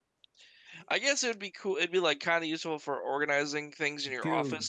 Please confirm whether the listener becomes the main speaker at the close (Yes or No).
Yes